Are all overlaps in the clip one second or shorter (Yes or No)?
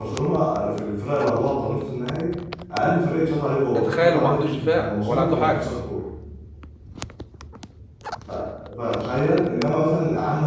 No